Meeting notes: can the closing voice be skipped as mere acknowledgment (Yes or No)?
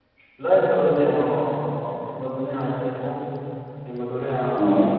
Yes